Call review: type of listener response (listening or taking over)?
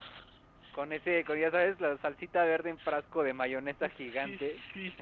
taking over